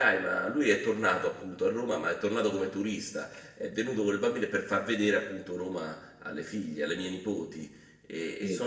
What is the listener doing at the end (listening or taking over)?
listening